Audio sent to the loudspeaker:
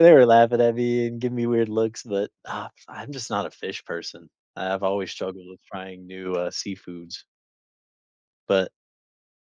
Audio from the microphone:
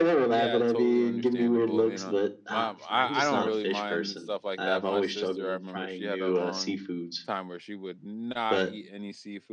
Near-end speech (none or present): present